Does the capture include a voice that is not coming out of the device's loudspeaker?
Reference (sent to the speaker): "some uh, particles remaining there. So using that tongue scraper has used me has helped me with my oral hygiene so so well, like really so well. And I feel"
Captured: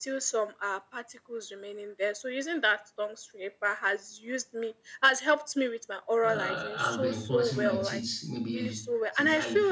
Yes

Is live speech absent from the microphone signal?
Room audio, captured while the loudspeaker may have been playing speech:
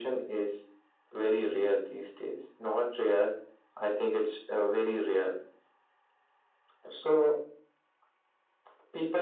Yes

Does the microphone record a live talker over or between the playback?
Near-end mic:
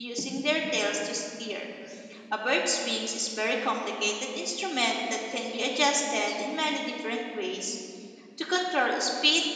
Yes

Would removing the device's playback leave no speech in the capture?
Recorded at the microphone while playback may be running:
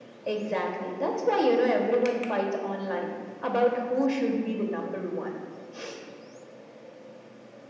Yes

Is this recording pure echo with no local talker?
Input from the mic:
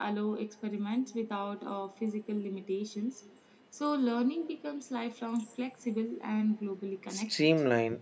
No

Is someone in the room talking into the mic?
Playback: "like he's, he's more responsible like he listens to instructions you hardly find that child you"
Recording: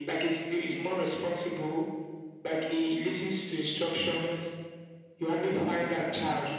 No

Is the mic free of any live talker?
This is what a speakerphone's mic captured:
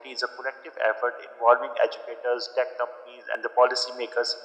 Yes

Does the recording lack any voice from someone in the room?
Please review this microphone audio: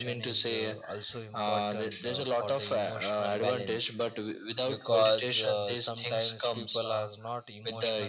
No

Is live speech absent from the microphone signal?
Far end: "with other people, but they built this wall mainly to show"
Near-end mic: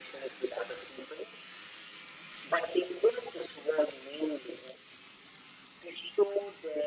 Yes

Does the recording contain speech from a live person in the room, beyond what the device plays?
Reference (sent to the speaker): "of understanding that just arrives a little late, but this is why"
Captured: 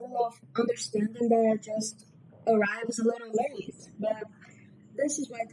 No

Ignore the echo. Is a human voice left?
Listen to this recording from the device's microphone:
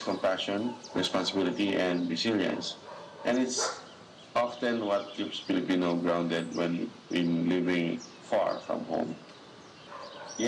No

